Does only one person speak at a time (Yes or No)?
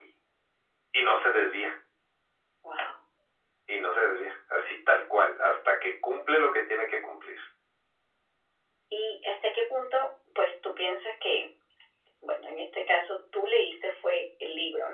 Yes